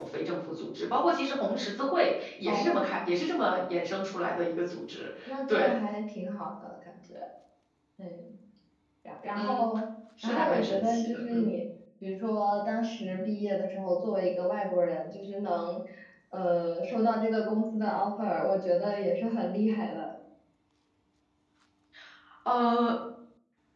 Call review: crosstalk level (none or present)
present